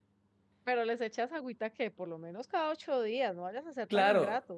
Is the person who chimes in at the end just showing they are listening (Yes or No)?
No